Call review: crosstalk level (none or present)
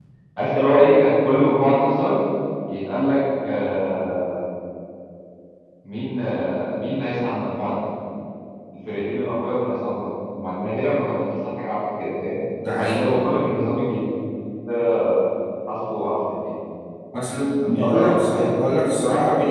present